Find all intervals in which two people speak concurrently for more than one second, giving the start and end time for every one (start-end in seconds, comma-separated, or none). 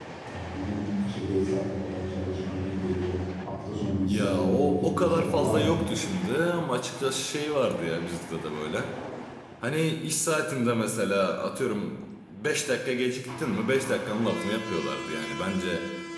4.0-5.8